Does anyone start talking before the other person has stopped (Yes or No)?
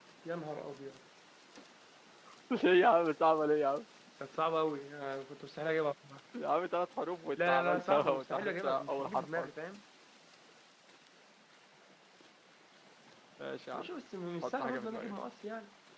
Yes